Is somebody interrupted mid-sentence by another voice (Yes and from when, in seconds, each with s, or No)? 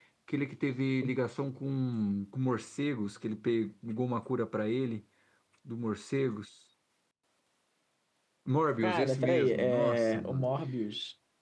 Yes, from 8.8 s